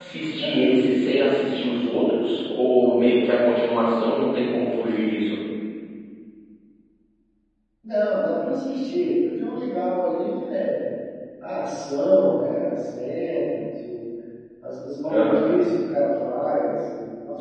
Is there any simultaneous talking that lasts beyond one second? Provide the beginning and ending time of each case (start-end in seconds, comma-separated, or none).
none